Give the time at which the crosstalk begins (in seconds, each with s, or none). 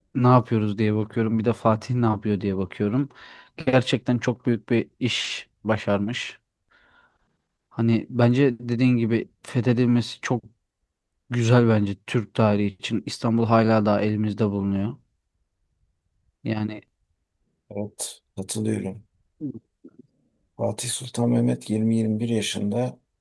none